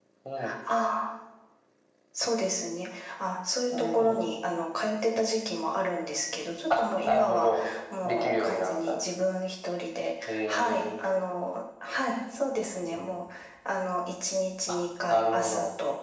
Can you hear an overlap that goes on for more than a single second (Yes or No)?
Yes